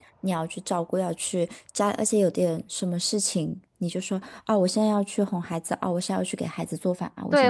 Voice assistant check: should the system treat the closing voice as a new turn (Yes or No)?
Yes